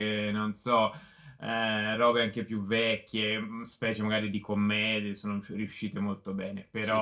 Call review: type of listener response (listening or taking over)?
listening